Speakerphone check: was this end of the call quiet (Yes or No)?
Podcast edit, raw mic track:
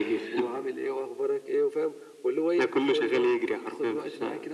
Yes